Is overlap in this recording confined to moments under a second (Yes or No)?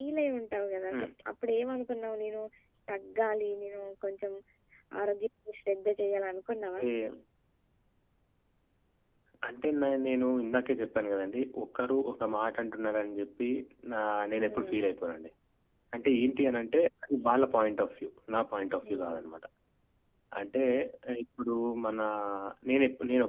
Yes